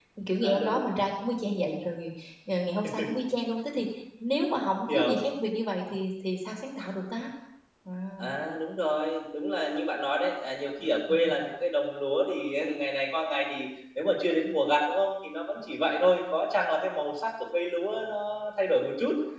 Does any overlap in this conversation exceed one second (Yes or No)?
No